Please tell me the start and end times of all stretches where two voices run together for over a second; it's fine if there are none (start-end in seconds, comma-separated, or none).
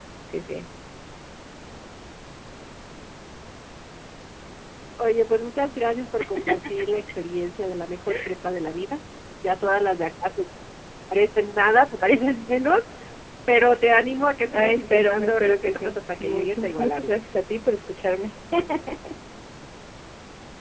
14.5-17.2